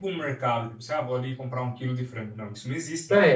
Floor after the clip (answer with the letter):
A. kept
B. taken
B